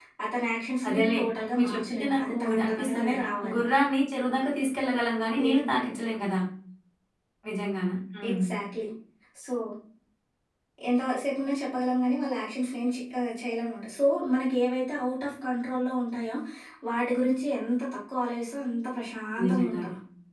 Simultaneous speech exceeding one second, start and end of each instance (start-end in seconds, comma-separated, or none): 1.5-3.1